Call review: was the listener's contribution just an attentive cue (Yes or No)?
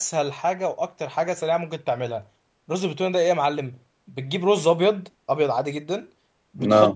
Yes